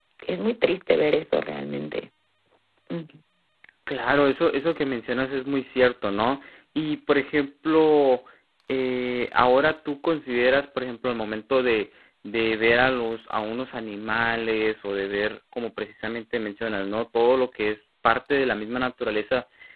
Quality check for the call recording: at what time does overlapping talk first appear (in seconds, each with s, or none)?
none